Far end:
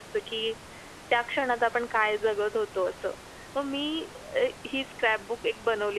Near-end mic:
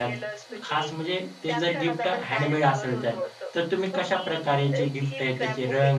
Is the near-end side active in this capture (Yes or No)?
Yes